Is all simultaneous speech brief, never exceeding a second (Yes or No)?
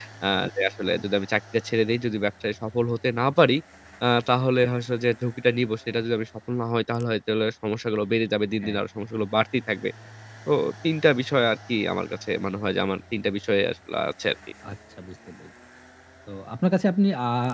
Yes